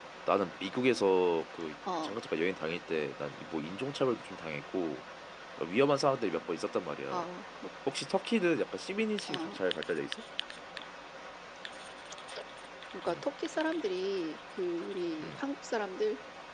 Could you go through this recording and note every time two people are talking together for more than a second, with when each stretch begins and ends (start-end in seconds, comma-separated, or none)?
none